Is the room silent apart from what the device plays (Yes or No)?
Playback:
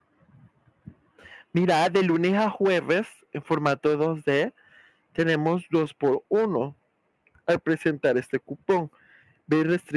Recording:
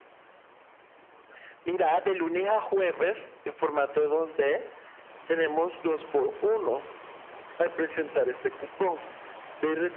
Yes